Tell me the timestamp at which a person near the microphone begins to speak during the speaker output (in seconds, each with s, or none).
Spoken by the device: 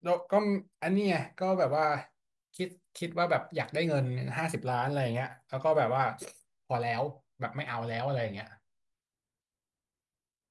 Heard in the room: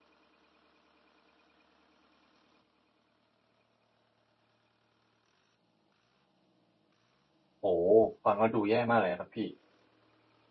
7.6 s